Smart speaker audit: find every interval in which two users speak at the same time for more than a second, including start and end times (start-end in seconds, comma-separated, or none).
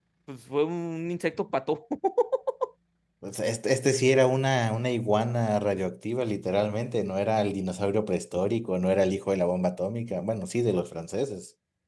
none